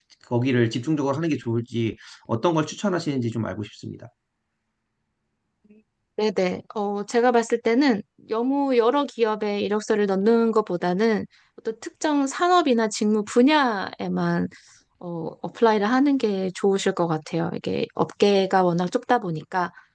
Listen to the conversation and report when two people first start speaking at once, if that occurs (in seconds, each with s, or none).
none